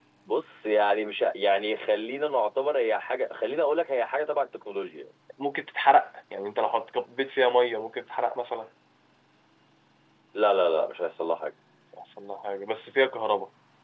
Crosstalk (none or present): none